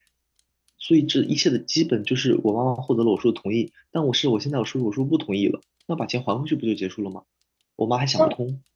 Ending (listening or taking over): taking over